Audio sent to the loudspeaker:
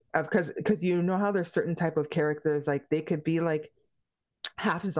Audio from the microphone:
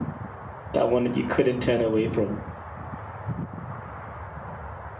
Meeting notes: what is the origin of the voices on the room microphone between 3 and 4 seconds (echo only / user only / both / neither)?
neither